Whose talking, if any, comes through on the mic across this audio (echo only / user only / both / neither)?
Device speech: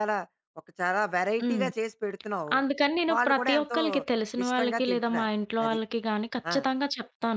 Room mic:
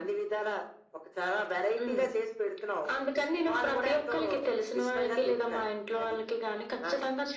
echo only